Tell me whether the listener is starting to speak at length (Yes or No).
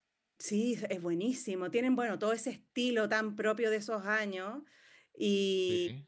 No